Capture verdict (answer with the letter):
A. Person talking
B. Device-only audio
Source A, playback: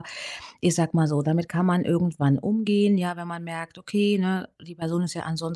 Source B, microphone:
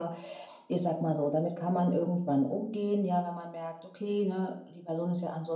B